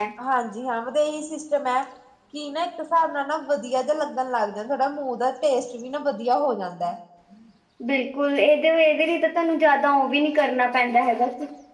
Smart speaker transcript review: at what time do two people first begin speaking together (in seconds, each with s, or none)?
none